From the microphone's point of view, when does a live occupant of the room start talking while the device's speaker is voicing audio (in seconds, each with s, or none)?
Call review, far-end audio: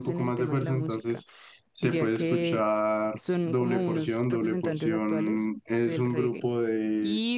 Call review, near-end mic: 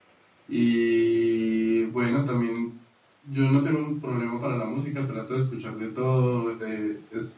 0.5 s